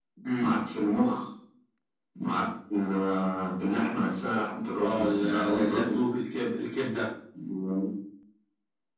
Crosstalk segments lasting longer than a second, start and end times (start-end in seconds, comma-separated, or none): 4.8-6.0